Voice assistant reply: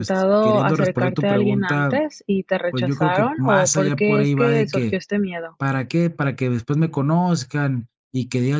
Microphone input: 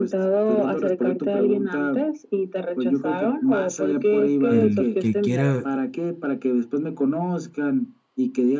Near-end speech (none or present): present